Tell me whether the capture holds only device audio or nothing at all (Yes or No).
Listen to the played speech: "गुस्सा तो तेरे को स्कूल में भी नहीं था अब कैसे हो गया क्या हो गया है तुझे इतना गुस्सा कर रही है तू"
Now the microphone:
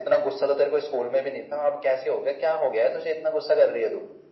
Yes